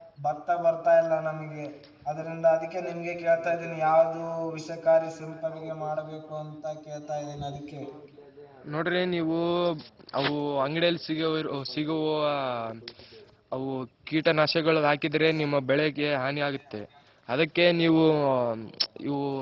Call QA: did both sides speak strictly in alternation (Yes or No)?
Yes